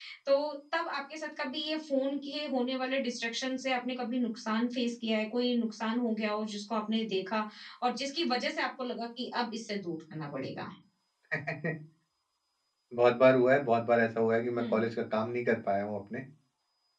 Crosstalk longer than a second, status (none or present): none